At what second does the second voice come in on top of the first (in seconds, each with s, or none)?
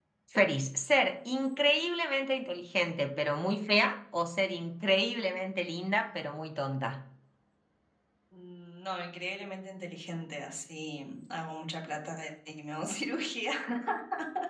none